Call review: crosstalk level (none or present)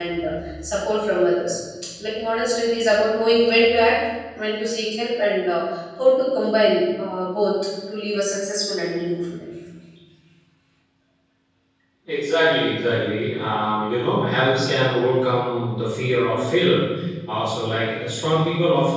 none